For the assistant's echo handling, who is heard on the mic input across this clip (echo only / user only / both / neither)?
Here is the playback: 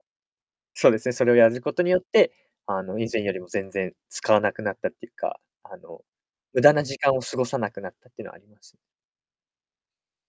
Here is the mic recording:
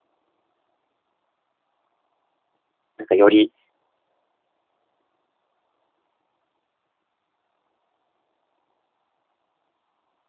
user only